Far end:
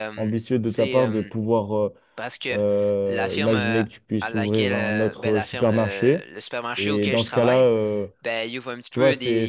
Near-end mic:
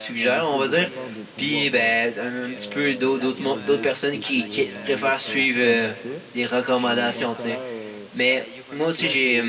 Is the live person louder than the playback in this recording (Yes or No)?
Yes